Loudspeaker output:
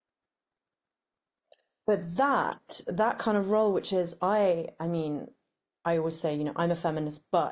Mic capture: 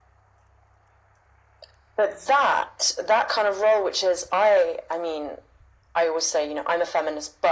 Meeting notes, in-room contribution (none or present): none